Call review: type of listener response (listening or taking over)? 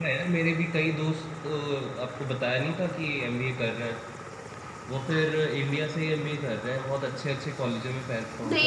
taking over